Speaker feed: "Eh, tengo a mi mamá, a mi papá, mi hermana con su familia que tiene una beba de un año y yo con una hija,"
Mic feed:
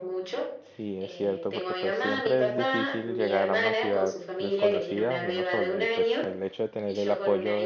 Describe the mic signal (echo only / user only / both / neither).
both